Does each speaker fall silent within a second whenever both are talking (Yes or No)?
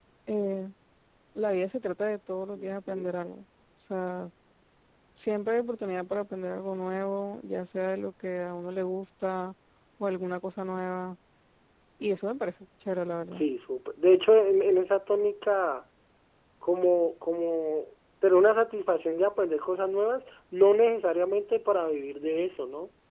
Yes